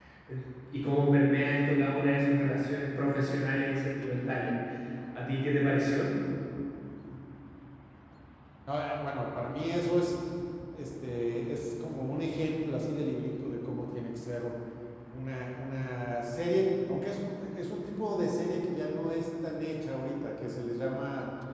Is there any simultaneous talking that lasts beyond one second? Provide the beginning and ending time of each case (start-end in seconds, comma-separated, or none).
none